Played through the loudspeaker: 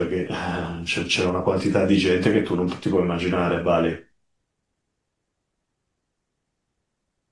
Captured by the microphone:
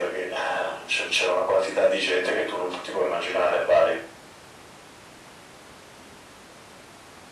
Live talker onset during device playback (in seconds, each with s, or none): none